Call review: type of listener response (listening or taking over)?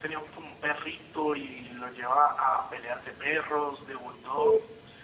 taking over